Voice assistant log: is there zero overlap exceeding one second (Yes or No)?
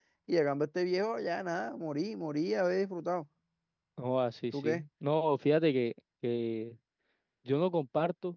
Yes